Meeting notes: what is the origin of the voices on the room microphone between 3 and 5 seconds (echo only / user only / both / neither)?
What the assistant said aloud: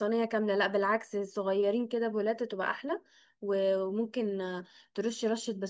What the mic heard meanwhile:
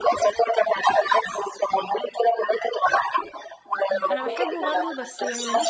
both